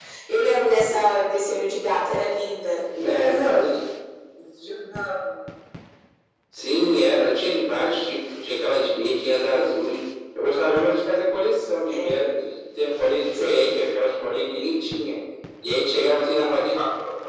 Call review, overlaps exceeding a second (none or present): none